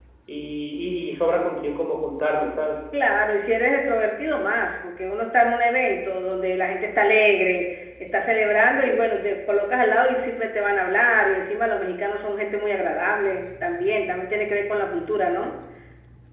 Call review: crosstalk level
none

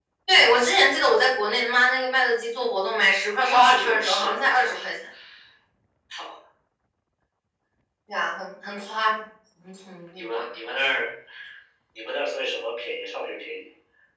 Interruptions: present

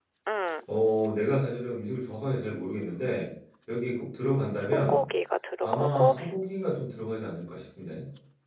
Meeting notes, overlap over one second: none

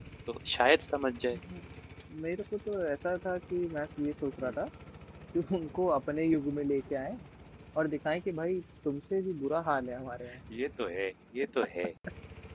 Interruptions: none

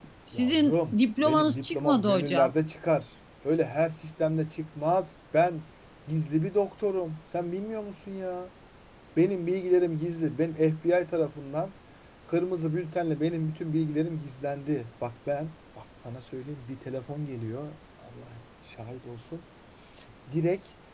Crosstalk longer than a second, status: present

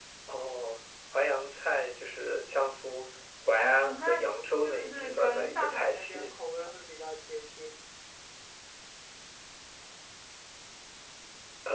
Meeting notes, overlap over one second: present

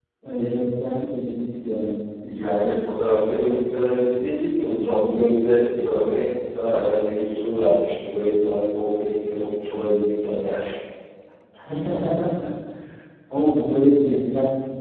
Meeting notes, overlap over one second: none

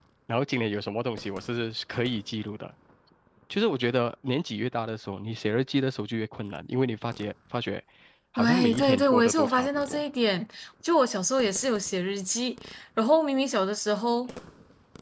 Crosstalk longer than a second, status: present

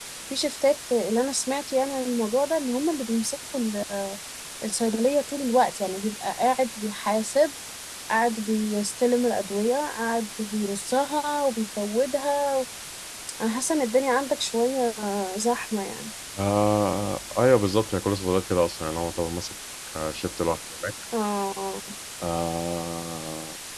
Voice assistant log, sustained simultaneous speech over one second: none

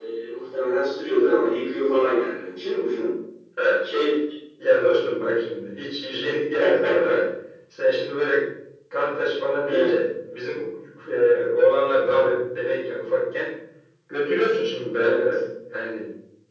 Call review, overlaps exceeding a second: none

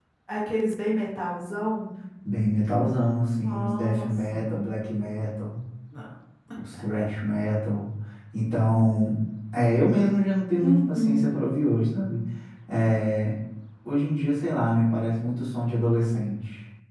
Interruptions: present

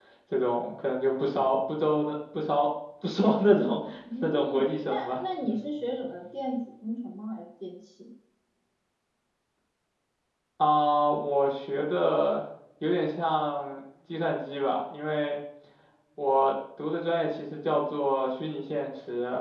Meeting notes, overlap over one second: present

